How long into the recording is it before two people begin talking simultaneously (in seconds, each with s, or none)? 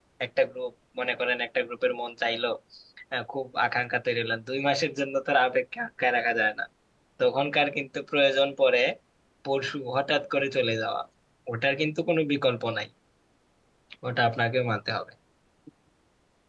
none